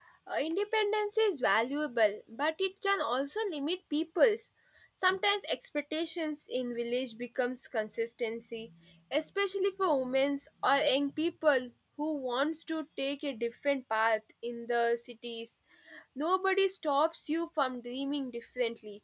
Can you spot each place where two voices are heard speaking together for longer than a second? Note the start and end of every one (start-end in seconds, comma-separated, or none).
none